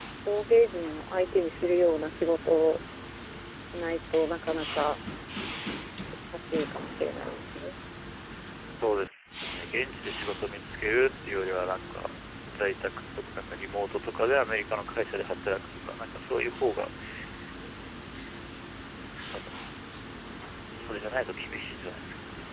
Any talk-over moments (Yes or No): No